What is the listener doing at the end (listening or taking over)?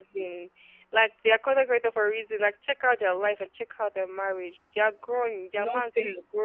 listening